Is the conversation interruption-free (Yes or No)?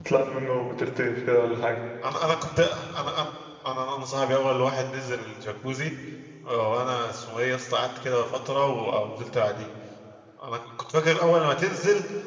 Yes